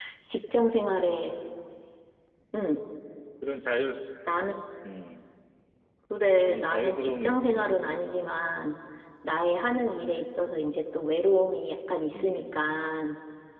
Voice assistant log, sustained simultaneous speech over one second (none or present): present